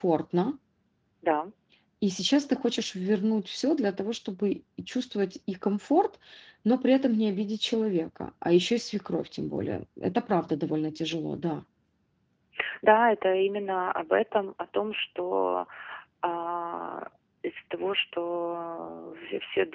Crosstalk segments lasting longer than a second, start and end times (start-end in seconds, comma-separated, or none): none